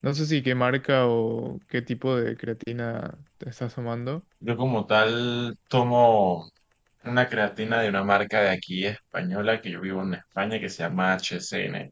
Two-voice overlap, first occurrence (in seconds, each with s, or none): none